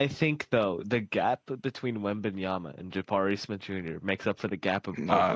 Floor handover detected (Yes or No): Yes